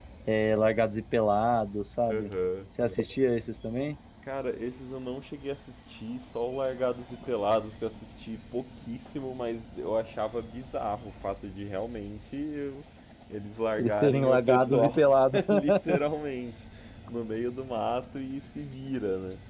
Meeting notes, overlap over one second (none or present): present